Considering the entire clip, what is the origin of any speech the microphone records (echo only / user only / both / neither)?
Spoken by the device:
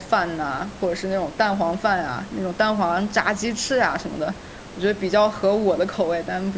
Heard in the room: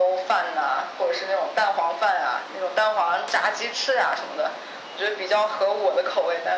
echo only